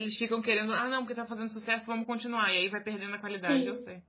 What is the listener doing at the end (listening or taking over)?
taking over